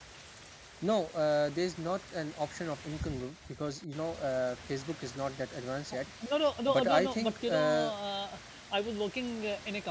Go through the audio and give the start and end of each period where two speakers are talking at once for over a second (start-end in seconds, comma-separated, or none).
6.7-7.9